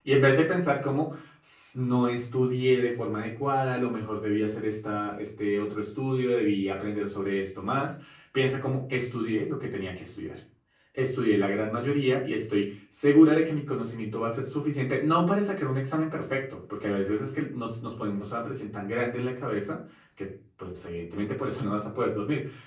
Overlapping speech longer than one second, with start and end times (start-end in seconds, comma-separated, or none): none